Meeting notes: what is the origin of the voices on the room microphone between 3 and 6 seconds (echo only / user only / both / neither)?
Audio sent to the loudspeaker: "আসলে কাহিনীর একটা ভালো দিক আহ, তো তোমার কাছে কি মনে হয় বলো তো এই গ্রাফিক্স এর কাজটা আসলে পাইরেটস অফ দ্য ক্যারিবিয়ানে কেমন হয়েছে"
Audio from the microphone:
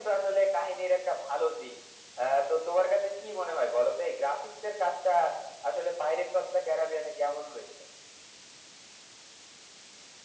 echo only